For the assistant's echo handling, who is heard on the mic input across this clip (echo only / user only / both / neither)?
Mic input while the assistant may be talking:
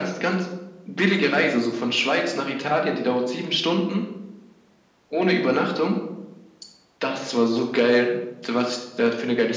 echo only